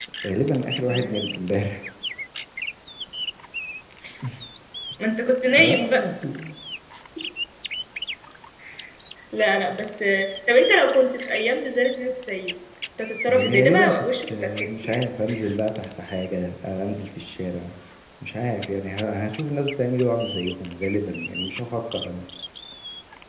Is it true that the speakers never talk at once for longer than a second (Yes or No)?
No